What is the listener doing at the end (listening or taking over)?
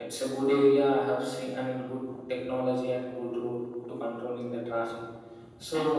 taking over